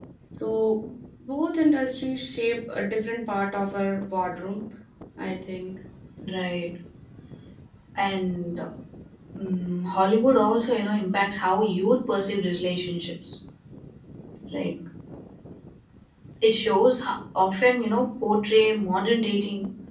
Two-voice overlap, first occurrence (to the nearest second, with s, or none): none